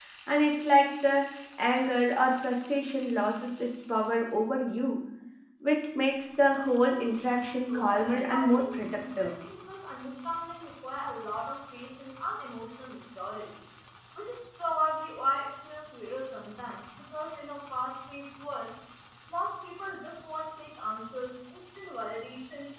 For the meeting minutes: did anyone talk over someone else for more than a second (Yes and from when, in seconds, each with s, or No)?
Yes, from 7.7 s